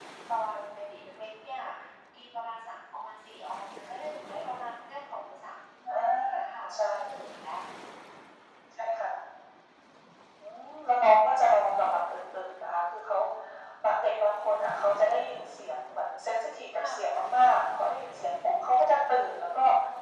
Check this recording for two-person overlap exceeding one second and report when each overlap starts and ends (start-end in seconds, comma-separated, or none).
none